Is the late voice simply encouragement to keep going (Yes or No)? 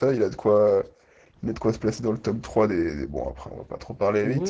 No